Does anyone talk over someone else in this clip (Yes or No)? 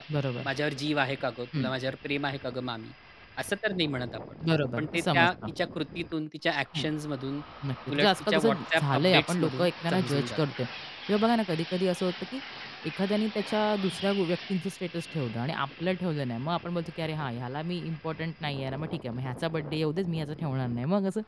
Yes